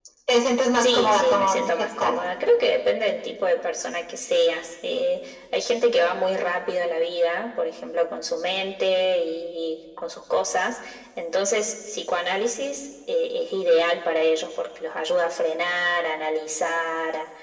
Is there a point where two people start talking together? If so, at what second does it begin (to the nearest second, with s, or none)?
1 s